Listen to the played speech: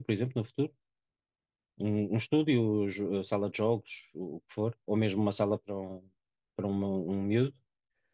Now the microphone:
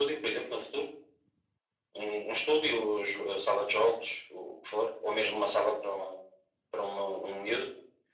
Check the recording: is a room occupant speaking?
No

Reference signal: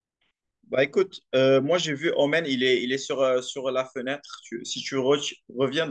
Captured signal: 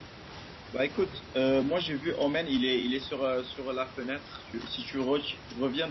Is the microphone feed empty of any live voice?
Yes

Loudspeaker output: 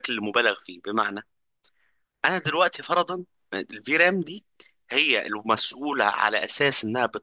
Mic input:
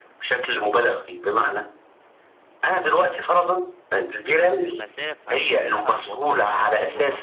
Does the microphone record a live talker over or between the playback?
Yes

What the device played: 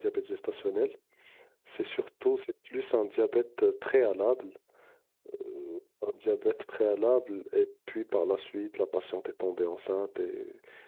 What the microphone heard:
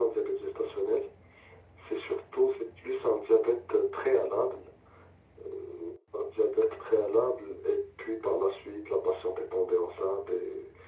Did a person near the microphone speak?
No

